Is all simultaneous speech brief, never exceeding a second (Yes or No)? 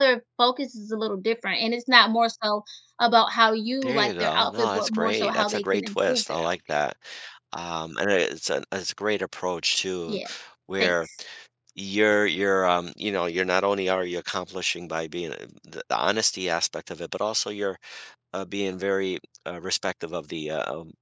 No